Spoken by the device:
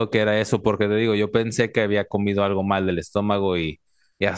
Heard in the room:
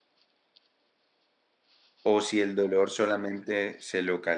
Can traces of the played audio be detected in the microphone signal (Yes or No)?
No